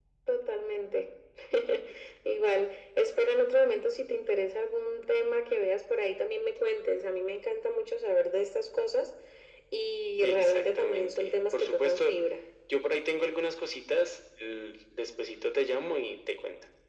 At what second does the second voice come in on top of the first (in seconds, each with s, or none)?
10.2 s